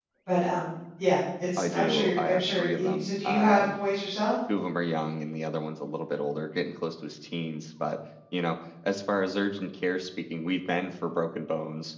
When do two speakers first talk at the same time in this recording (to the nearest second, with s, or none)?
2 s